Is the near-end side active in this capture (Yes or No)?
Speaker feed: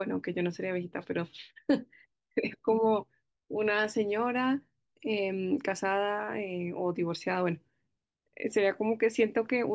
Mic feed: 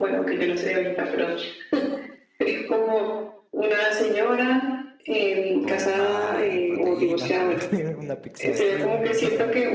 Yes